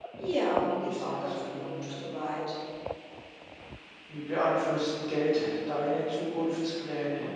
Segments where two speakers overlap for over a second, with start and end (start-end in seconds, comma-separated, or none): 0.5-2.0